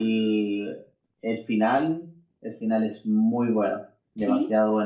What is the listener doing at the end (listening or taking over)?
taking over